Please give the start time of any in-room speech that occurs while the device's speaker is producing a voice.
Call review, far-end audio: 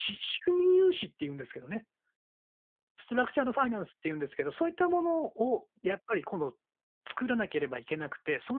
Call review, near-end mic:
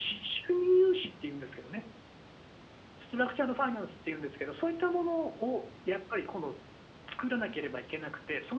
none

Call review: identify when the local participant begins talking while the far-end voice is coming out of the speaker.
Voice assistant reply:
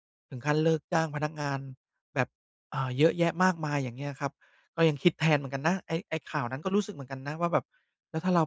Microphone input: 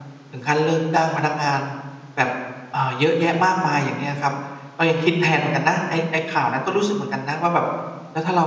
none

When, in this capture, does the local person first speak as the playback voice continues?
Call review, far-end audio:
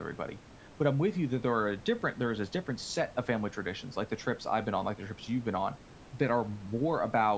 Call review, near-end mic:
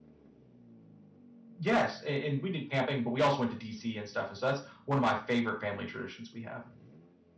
2 s

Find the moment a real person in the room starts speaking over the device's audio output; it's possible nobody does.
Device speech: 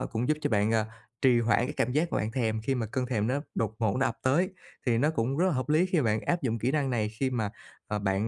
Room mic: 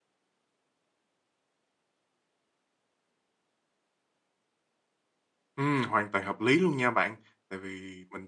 6 s

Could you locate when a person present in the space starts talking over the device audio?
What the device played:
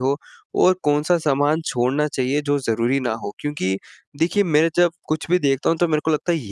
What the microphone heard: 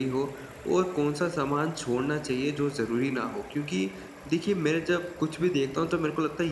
none

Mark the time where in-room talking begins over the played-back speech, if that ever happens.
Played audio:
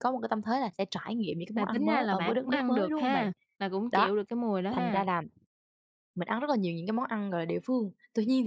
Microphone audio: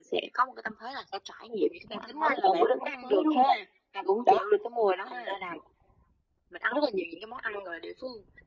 none

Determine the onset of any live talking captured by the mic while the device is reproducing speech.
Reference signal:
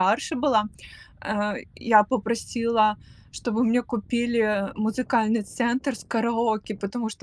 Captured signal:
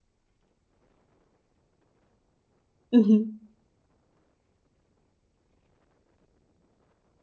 3 s

